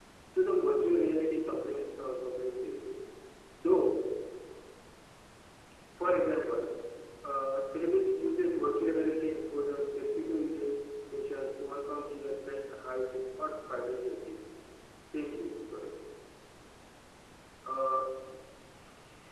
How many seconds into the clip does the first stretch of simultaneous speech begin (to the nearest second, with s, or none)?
none